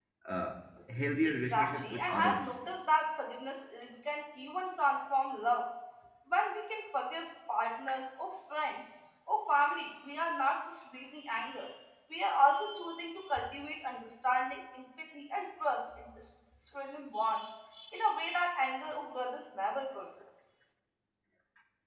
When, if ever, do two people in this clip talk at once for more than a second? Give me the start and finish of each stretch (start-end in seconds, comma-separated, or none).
1.2-2.5